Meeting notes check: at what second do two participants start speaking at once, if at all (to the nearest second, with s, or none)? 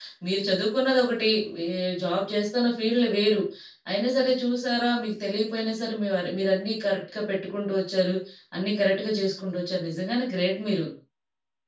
none